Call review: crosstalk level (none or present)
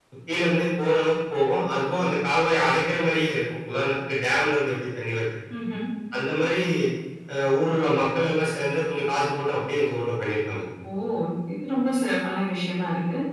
none